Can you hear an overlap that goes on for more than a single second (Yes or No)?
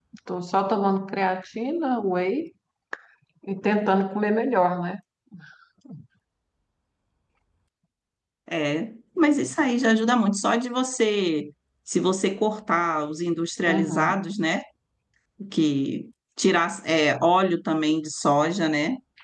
No